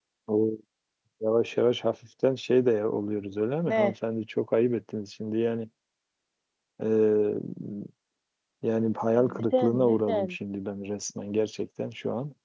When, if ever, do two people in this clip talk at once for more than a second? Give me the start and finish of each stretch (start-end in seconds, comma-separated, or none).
9.2-10.4